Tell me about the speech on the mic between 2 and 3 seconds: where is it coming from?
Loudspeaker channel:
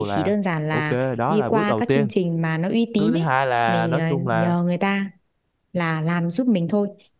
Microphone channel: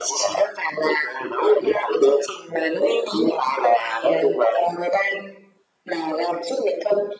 echo only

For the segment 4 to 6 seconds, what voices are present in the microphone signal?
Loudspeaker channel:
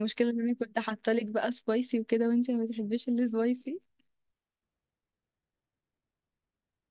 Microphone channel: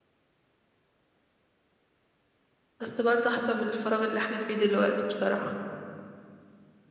user only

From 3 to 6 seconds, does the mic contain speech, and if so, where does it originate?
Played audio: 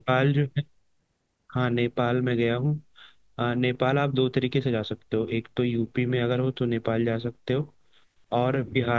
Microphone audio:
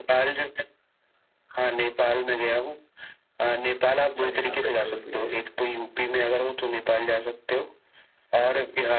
both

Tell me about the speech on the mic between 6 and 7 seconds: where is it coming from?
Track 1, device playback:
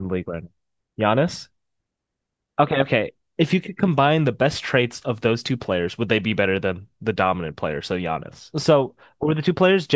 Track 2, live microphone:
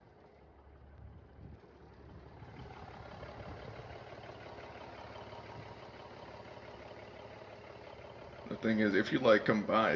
neither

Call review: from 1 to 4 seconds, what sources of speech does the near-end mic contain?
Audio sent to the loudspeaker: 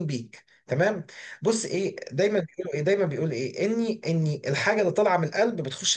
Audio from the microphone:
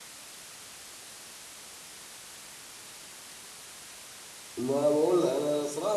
neither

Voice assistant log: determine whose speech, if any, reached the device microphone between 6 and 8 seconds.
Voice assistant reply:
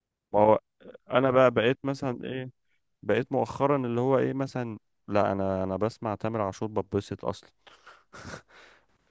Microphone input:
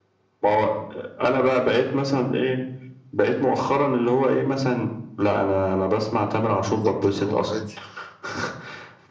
both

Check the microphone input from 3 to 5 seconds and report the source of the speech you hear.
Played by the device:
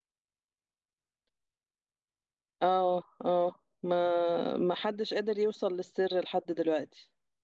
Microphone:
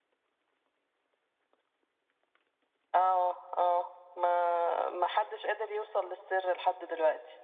echo only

